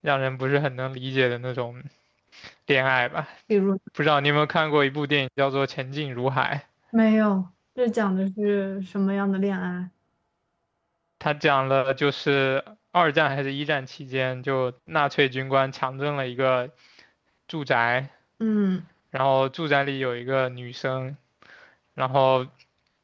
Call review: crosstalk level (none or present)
none